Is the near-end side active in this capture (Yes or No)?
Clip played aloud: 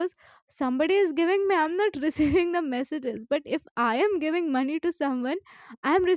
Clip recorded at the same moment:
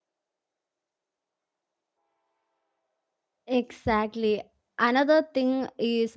Yes